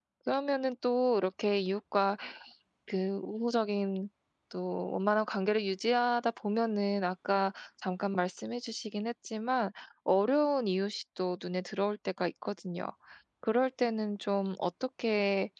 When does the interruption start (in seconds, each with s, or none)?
none